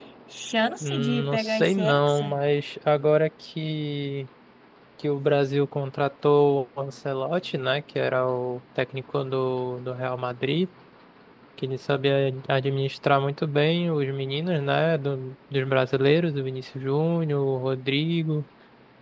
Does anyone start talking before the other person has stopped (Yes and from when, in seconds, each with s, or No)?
Yes, from 0.8 s